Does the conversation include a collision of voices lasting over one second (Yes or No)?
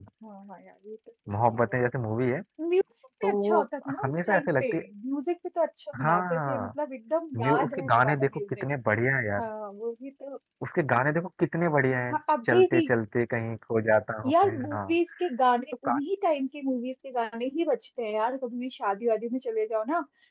Yes